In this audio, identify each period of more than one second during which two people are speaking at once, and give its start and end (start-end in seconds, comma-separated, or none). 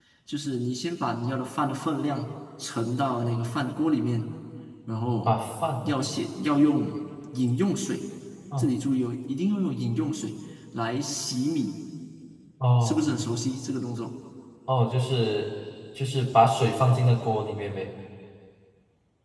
none